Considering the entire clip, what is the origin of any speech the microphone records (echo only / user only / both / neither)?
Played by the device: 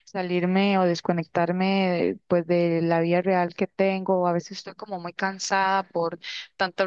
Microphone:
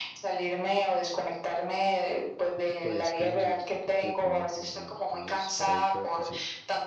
both